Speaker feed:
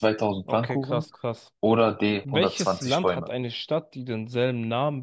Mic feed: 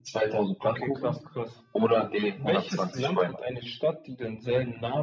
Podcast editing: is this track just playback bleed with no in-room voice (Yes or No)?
Yes